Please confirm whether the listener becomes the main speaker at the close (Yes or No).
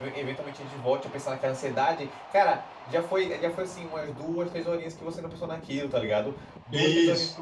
No